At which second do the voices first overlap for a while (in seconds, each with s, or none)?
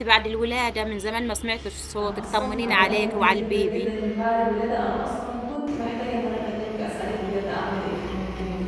2.0 s